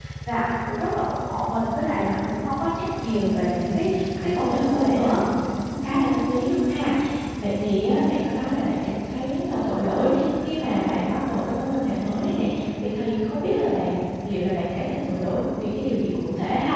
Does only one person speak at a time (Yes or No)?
No